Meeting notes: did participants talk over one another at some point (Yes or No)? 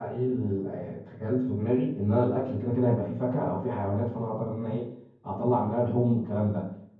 No